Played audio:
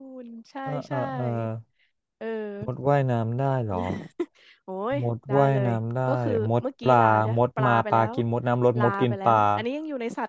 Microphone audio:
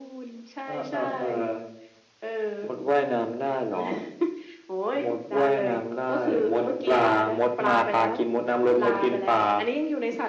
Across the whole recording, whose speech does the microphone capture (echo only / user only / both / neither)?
echo only